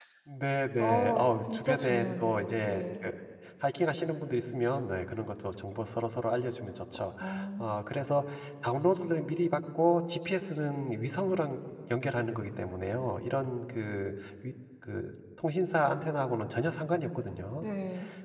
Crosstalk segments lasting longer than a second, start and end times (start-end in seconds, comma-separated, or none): 0.8-2.8